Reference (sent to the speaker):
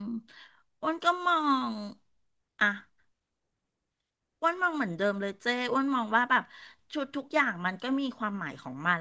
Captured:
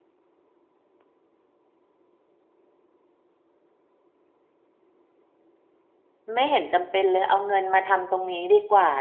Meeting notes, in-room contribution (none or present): present